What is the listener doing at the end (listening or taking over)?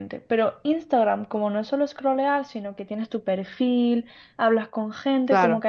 listening